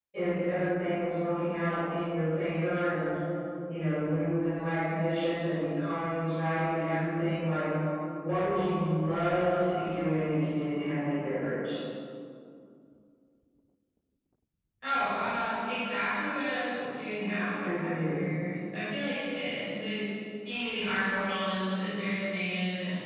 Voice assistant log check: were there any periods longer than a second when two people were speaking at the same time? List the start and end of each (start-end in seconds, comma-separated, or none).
none